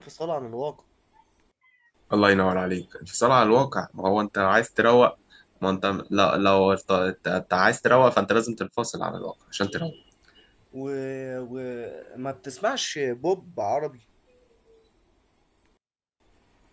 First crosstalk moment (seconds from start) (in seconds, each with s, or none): none